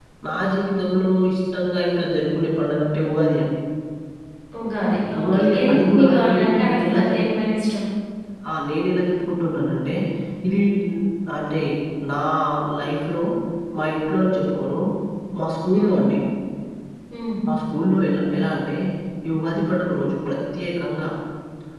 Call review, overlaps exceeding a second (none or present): present